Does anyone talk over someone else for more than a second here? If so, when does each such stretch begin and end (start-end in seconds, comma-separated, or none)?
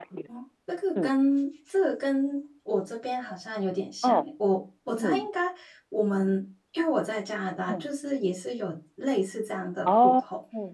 none